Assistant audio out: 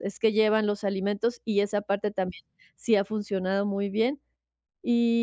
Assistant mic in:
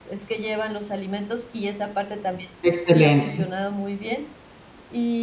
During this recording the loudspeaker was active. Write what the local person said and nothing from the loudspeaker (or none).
Excelente.